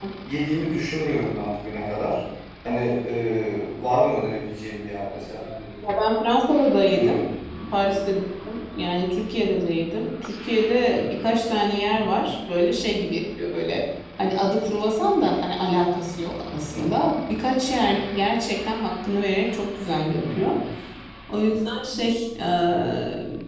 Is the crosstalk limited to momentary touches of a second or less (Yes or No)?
Yes